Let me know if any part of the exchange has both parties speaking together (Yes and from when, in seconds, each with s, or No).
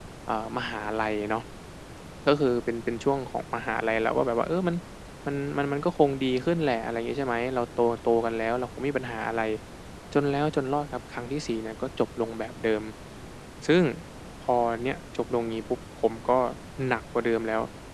No